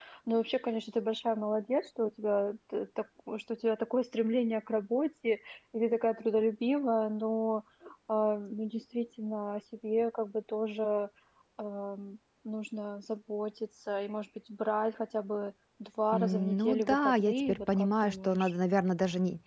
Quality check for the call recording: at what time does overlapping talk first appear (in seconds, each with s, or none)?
16.1 s